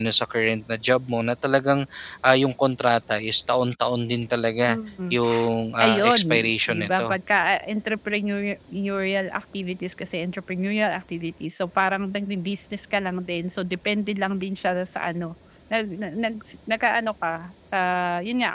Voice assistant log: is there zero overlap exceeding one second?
No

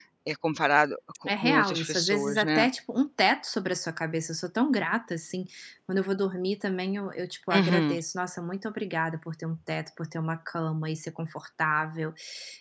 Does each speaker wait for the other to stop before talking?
No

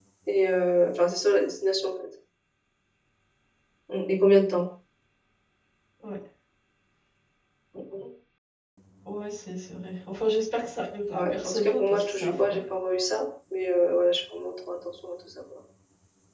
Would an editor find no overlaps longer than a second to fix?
No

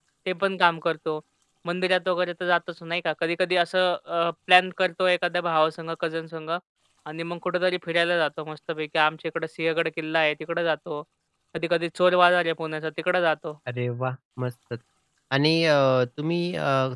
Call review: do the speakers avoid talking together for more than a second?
Yes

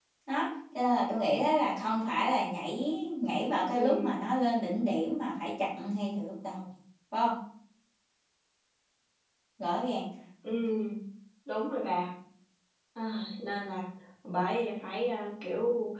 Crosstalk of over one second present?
No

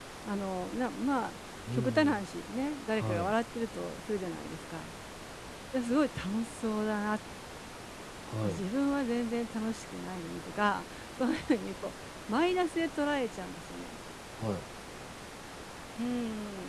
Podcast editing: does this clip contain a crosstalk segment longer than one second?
No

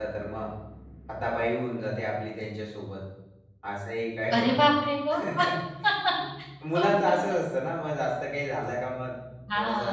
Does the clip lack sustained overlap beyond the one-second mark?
Yes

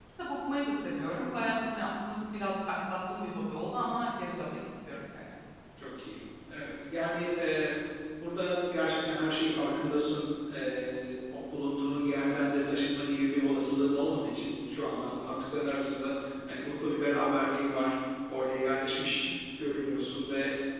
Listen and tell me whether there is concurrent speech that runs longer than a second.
No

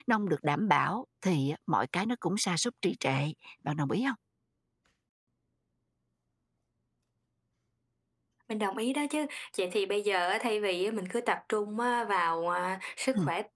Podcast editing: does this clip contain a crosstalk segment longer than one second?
No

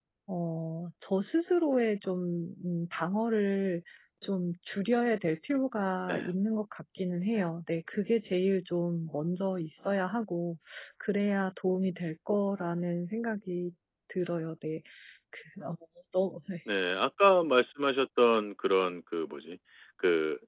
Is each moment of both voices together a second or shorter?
Yes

